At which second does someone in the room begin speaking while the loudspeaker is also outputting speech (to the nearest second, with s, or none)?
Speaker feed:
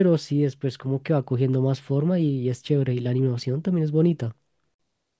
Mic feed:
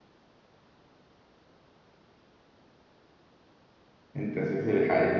4 s